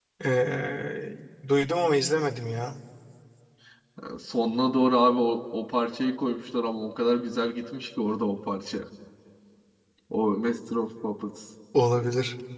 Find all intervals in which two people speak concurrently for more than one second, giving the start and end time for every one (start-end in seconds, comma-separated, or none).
none